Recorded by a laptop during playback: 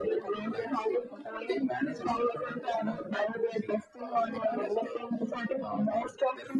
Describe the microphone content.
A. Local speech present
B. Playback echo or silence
B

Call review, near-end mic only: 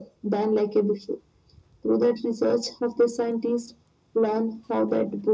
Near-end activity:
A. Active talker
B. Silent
B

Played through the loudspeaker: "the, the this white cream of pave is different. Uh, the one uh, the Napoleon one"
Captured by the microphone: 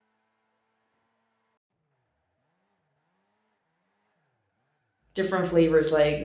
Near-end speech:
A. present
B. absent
A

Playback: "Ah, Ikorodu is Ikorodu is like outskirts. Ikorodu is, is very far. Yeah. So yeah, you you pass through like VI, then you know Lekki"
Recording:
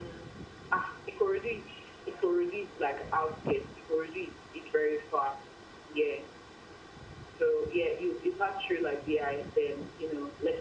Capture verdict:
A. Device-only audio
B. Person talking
A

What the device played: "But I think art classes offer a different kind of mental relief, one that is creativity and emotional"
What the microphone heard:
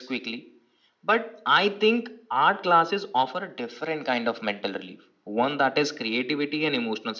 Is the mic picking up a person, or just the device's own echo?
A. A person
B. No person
B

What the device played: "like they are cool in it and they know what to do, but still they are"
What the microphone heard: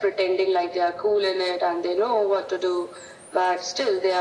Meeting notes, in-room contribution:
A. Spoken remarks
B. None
B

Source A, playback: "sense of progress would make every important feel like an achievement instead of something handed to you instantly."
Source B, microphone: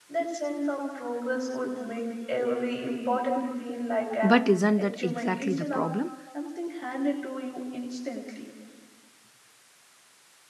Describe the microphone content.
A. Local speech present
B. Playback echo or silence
A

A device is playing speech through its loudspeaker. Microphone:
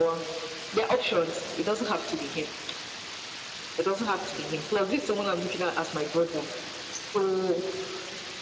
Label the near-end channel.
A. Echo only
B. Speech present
A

